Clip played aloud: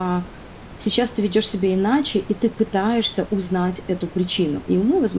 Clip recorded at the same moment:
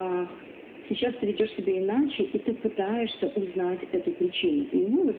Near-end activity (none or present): none